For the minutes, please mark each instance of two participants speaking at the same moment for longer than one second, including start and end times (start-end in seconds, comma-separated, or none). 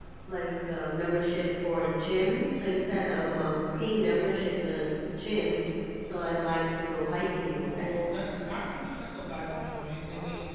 none